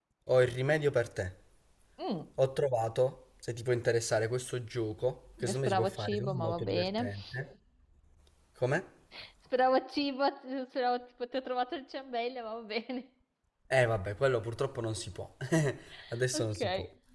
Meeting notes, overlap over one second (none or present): present